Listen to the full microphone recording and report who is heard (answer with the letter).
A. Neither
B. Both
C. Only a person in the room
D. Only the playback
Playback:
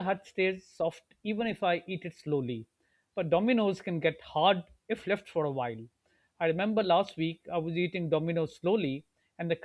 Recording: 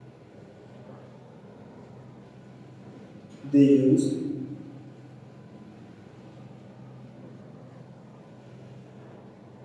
C